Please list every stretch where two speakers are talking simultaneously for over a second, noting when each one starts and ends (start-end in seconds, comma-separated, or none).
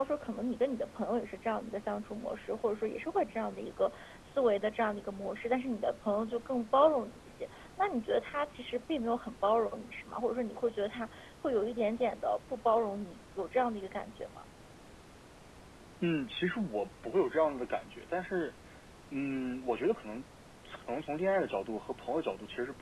none